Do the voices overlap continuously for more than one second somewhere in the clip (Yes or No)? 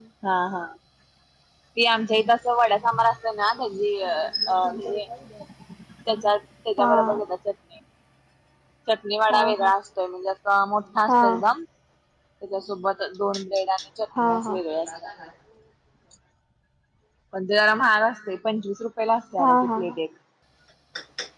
No